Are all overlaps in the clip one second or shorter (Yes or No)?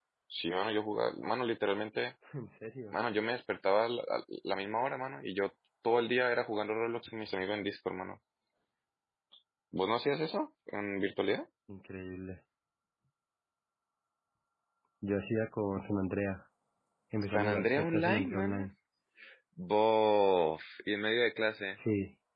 No